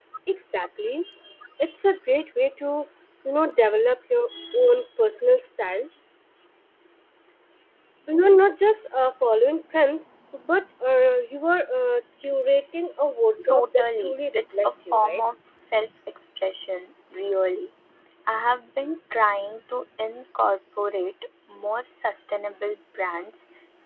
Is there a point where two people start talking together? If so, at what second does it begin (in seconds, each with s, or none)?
13.4 s